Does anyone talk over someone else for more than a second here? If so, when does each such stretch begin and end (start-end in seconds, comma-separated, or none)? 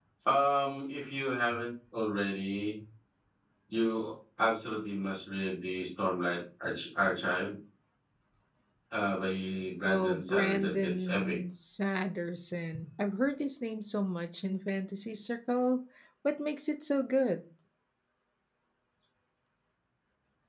9.8-11.4